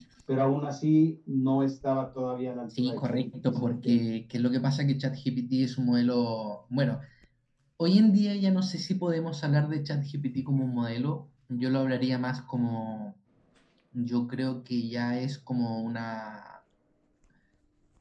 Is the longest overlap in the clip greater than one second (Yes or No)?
Yes